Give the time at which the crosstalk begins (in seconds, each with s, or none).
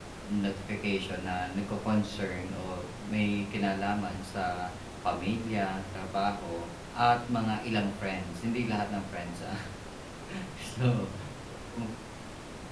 none